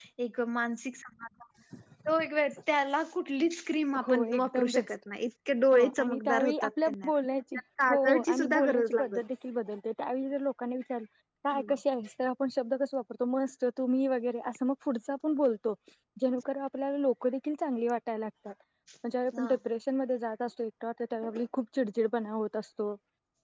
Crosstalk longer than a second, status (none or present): present